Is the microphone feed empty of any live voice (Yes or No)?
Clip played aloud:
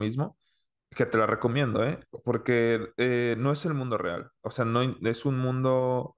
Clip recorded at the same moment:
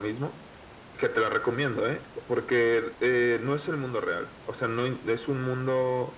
Yes